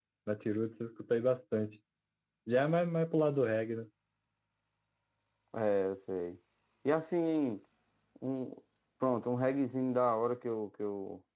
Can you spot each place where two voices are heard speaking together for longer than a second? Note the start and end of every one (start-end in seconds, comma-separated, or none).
none